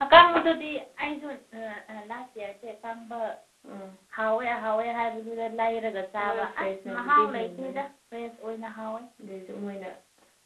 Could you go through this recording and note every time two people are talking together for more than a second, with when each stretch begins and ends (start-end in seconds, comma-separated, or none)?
6.2-7.8